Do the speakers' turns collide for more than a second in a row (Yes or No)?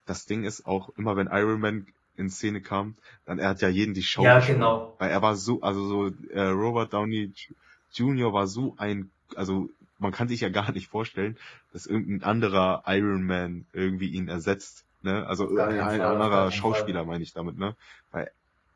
Yes